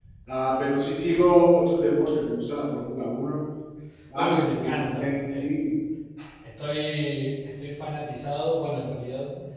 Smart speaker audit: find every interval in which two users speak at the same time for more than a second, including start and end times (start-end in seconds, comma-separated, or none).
4.1-5.5